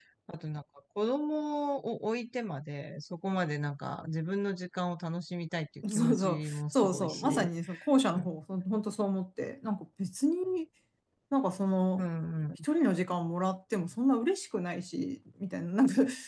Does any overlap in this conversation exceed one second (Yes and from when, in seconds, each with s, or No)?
Yes, from 5.8 s